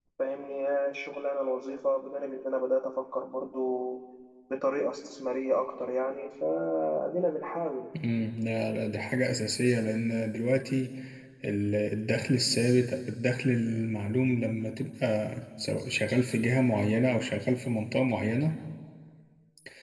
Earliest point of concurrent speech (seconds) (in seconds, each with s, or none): none